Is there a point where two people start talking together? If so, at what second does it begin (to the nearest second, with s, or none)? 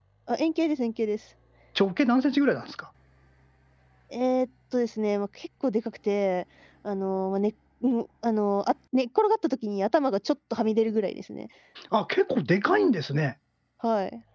none